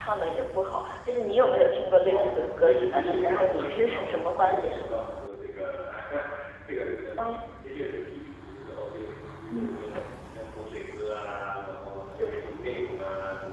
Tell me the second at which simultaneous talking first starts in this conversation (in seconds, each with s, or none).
2.0 s